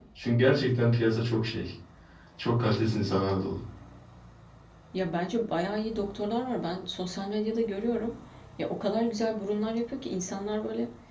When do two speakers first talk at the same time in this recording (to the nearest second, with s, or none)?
none